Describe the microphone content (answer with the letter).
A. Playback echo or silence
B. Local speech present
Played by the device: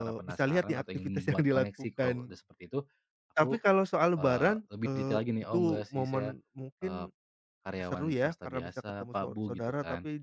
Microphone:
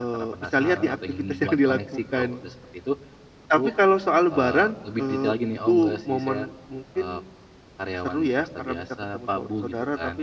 B